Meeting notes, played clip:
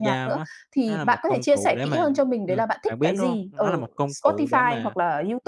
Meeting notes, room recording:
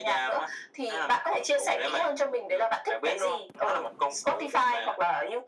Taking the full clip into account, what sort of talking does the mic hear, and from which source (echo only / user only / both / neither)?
echo only